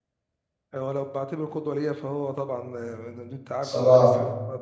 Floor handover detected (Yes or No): No